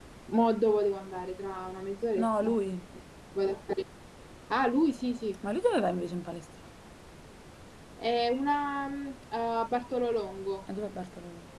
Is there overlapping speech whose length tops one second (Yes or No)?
No